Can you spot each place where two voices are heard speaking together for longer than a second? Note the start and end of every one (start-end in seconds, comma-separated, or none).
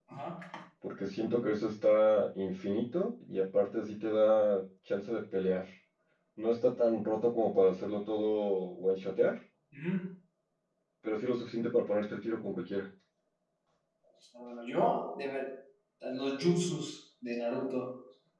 none